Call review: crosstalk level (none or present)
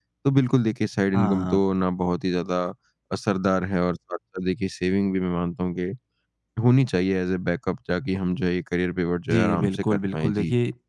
present